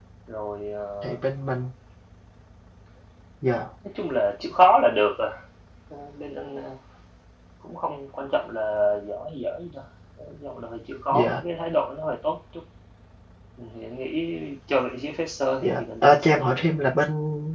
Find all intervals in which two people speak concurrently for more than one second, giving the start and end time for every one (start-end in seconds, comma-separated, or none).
15.6-16.8